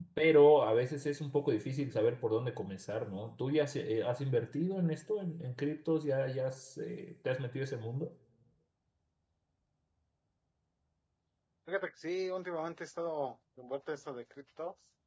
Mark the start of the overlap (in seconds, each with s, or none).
none